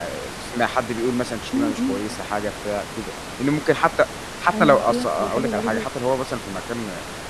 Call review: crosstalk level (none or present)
present